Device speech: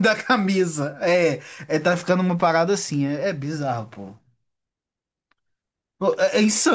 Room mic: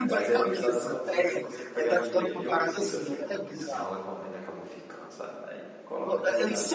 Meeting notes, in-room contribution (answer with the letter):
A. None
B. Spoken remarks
B